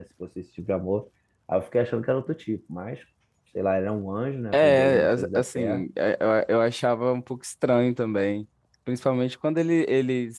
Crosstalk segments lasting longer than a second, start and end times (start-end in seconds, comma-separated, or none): 4.5-5.8